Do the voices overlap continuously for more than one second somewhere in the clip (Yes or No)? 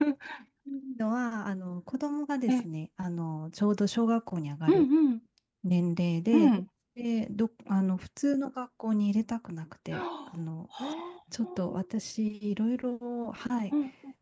No